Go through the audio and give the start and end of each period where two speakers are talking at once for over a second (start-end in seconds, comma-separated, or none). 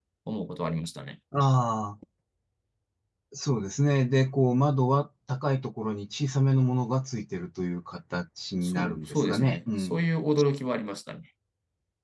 8.6-10.0